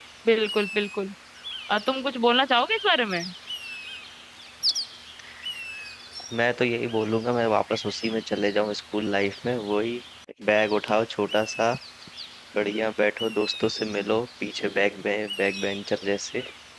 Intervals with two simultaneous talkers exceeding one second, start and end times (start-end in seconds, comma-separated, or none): none